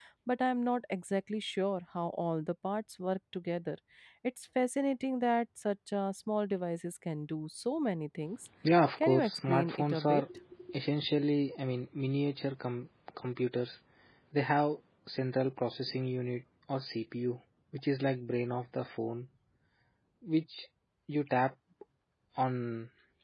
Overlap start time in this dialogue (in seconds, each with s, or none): 9.0 s